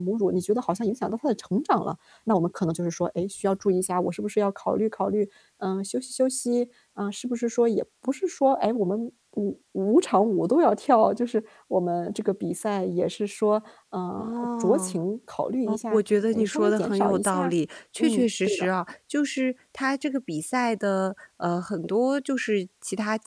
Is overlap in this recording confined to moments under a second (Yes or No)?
No